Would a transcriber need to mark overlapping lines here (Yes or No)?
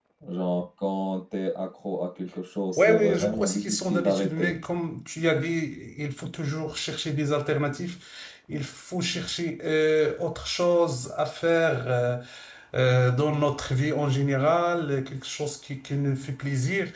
Yes